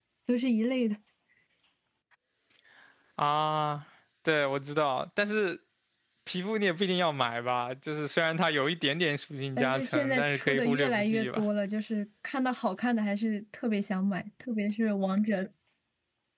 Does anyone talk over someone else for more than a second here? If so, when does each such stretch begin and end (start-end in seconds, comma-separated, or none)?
9.6-11.4